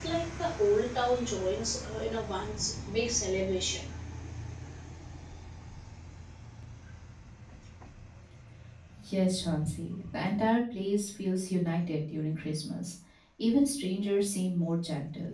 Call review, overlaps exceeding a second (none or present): none